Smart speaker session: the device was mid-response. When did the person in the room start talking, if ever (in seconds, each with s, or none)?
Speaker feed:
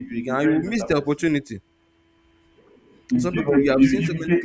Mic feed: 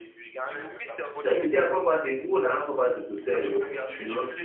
1.1 s